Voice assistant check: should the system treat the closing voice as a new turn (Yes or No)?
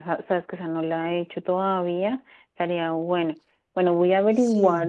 No